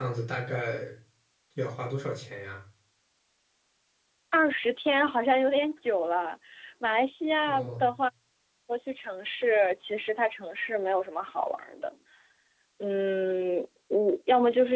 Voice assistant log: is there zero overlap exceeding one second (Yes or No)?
Yes